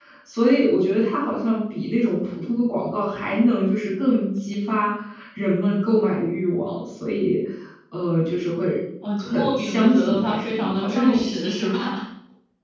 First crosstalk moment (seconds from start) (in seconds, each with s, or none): 9.0 s